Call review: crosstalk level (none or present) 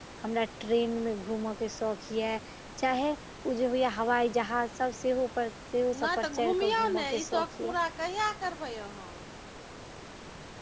present